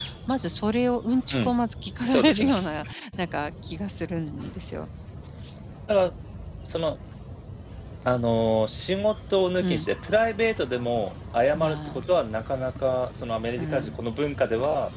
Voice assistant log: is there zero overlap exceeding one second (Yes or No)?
Yes